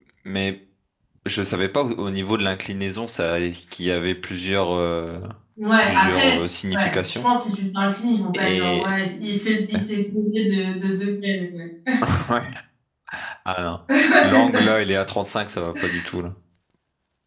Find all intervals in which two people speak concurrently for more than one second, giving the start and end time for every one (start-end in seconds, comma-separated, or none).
none